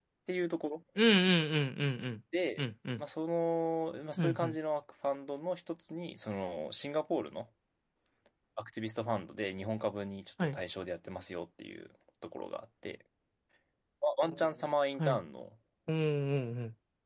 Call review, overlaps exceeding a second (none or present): none